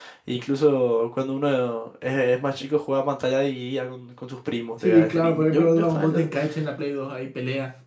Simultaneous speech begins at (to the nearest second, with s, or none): 5 s